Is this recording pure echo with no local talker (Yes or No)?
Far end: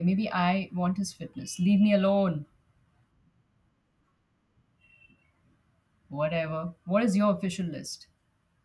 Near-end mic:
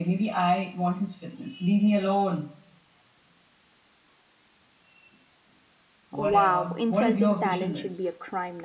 No